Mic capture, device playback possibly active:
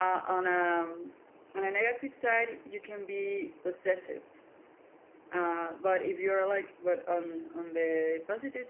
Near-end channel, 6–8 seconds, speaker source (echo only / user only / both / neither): user only